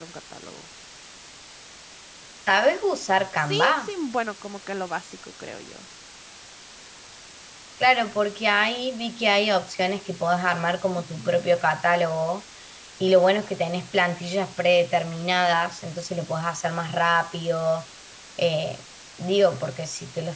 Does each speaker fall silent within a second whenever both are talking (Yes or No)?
Yes